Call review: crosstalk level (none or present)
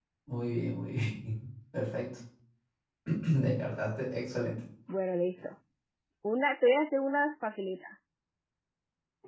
none